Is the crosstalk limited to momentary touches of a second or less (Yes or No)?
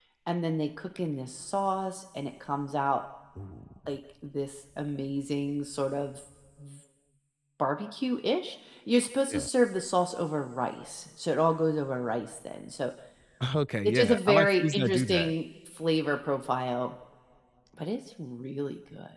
No